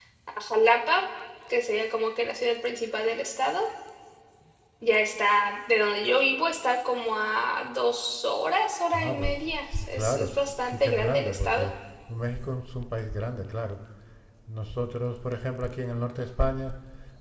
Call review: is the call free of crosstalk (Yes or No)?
No